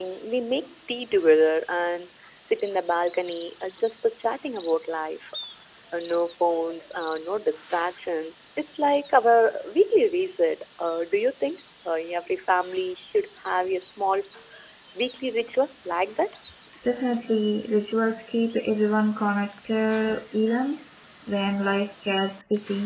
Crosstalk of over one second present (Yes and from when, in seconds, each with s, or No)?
No